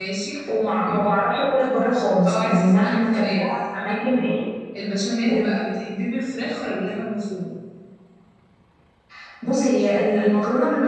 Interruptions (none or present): present